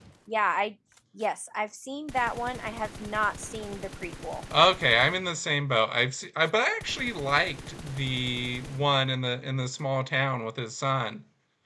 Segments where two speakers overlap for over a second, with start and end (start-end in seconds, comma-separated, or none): none